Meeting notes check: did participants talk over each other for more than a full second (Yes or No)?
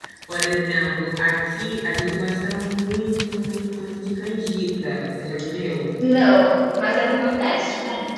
No